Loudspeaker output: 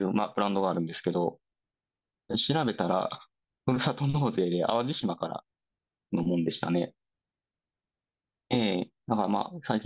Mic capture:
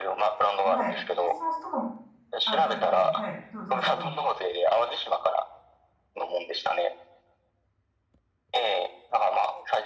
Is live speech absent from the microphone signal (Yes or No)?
No